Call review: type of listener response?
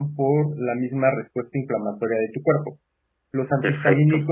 listening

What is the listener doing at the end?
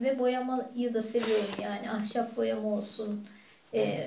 listening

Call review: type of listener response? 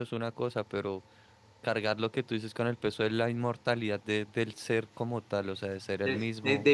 taking over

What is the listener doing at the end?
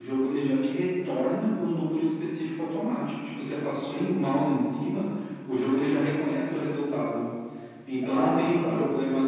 listening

